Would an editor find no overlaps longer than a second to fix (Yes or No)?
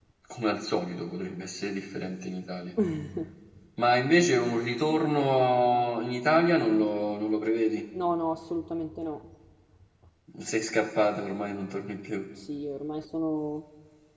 Yes